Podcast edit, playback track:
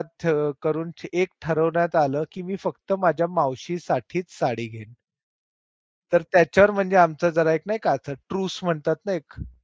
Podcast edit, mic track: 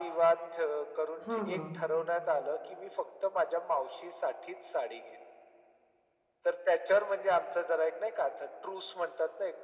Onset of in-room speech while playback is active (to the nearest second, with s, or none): 1 s